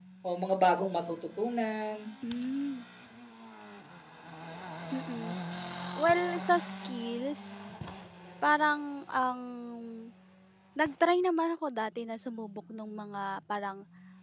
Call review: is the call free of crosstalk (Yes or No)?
Yes